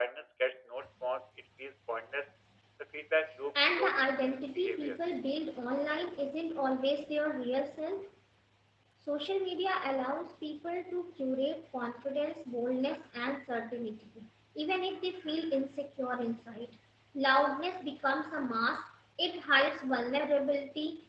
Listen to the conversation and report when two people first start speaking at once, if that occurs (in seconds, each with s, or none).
3.5 s